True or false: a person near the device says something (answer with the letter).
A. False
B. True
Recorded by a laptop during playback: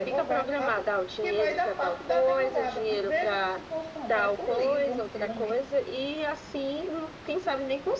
A